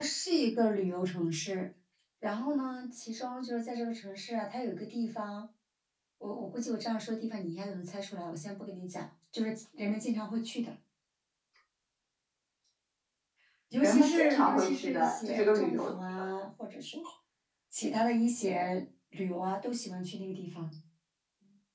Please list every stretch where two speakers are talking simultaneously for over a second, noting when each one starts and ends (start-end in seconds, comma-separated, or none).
13.8-16.0